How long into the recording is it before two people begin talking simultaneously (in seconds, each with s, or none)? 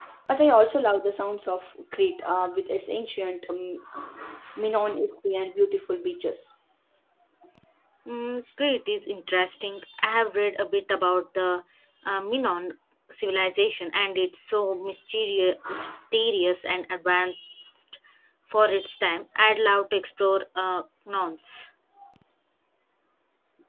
none